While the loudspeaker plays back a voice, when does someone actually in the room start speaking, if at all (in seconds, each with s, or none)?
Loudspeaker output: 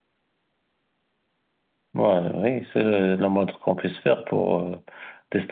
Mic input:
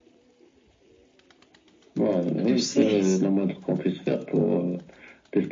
2.4 s